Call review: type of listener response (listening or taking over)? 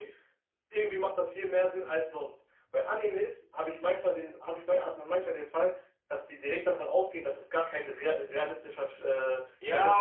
taking over